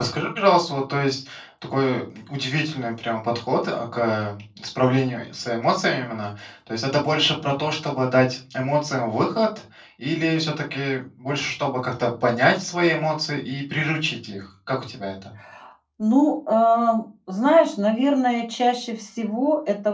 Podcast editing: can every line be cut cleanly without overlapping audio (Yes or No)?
Yes